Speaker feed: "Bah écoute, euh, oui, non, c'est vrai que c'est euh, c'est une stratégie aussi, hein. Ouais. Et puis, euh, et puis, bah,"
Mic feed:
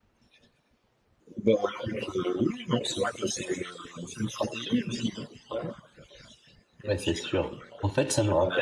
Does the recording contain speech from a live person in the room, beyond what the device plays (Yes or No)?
Yes